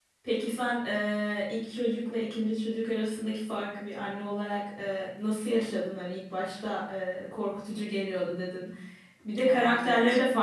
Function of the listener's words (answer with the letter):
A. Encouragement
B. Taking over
A